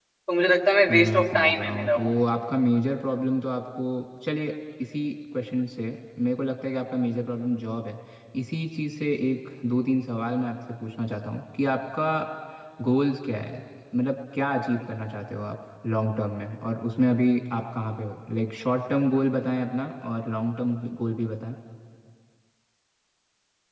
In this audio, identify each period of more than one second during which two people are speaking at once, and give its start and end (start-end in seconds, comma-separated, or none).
0.9-2.1